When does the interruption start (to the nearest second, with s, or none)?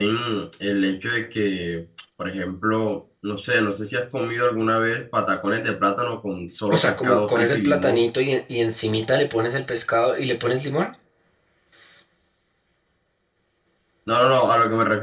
7 s